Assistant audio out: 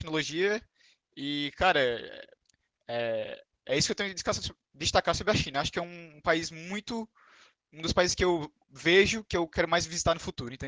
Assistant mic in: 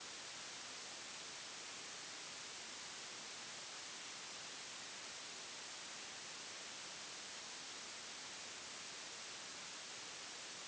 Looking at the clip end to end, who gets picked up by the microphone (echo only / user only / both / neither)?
neither